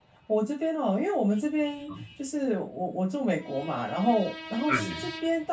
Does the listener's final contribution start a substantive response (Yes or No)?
No